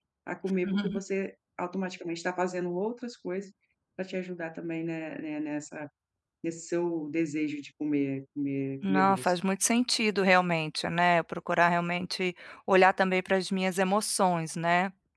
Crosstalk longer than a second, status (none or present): none